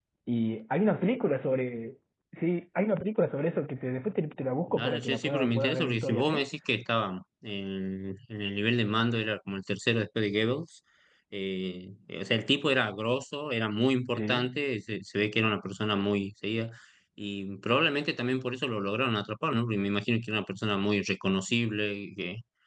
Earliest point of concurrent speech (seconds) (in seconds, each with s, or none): 4.7 s